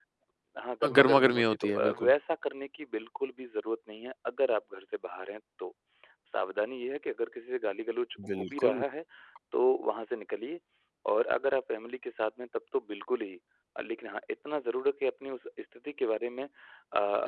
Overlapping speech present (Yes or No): Yes